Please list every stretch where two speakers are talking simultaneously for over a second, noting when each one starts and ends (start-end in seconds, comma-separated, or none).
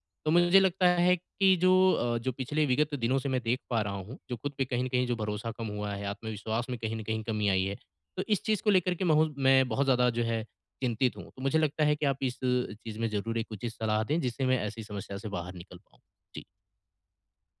none